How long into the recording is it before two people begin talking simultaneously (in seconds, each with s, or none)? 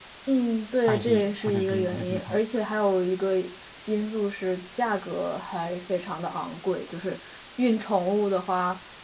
0.8 s